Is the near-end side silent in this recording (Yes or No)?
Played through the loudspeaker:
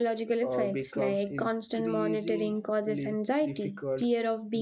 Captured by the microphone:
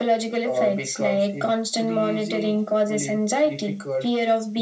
Yes